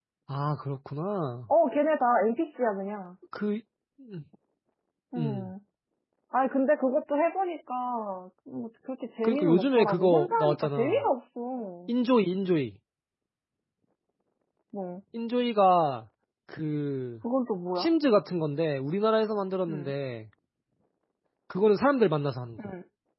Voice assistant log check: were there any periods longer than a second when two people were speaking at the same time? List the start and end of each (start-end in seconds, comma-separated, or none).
9.2-11.0